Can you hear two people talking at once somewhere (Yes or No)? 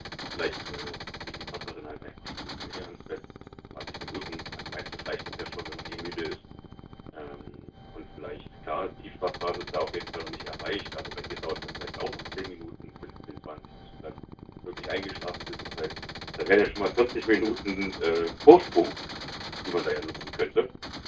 No